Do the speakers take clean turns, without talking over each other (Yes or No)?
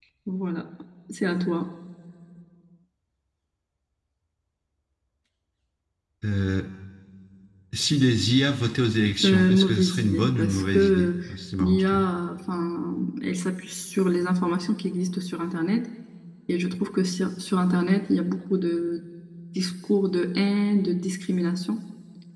No